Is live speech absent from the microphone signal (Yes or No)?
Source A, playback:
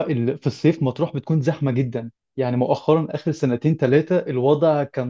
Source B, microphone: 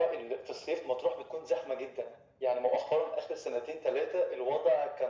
Yes